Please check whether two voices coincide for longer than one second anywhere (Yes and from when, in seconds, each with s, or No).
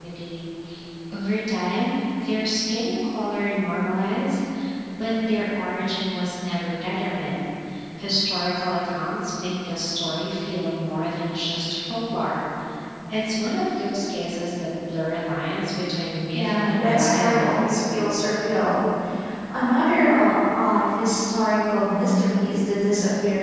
Yes, from 16.3 s